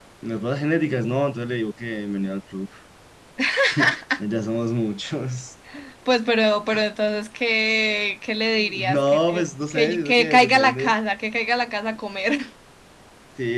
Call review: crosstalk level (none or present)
present